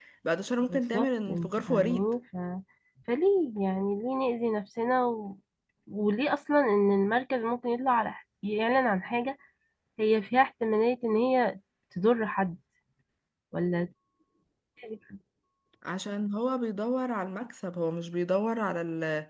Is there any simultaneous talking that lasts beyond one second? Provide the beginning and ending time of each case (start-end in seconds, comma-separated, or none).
0.6-2.0